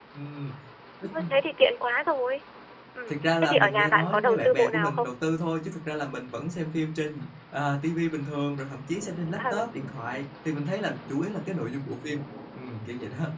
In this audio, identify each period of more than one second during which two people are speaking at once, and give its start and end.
3.1-5.1

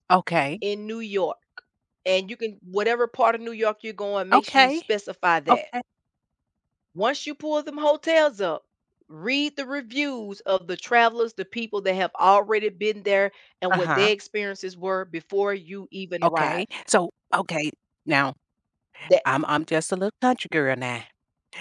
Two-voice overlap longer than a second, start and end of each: none

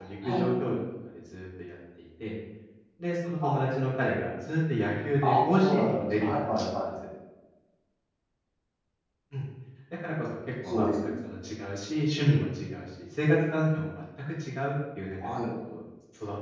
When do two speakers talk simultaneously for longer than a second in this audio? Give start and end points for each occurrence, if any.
5.2-6.8

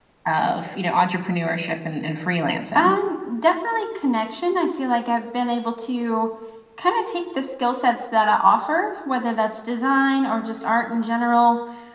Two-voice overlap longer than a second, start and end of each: none

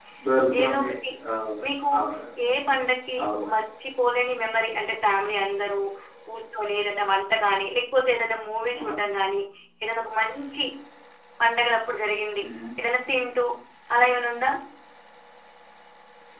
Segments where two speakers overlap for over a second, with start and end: none

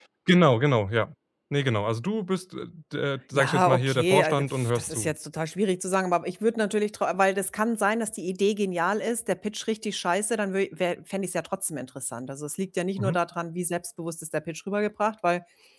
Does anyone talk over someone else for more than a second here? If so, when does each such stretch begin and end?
3.3-5.1

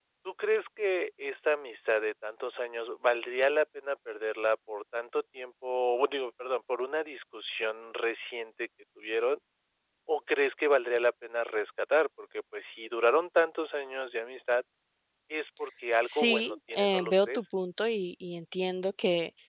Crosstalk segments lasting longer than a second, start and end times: 16.0-17.4

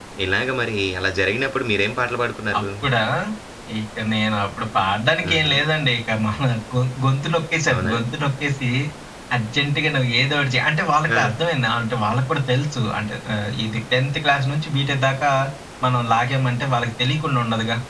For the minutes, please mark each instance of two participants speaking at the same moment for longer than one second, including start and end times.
none

